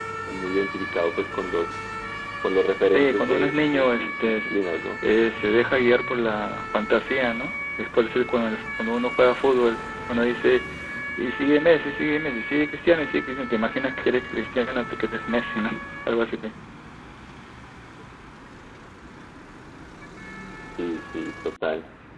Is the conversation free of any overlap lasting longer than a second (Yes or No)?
No